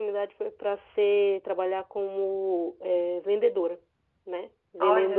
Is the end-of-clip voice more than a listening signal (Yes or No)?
No